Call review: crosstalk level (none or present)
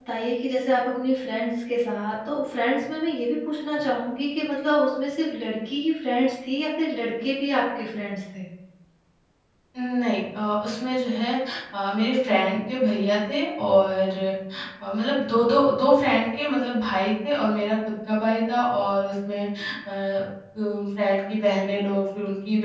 none